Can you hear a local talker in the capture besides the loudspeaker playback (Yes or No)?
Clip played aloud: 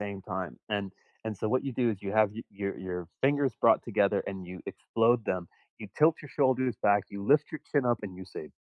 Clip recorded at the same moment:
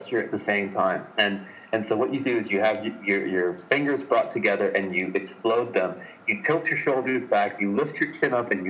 No